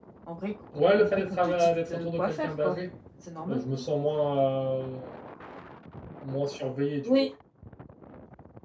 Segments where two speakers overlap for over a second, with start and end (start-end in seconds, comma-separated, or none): 0.8-2.8